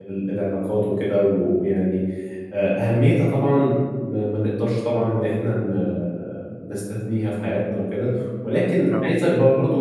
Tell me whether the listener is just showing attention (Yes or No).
Yes